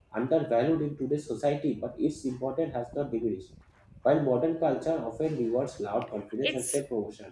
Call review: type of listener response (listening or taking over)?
listening